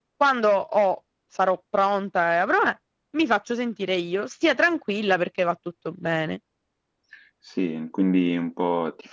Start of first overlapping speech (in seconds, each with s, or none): none